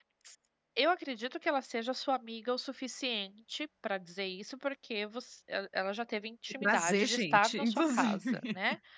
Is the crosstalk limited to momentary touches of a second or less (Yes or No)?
No